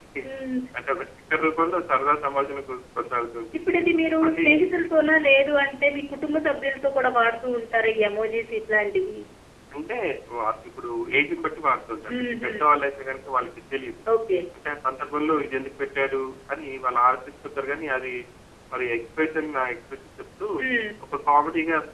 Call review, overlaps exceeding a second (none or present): none